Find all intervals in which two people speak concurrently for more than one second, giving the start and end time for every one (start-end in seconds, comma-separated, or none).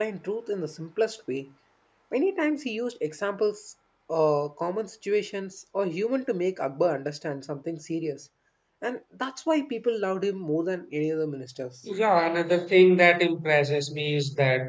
none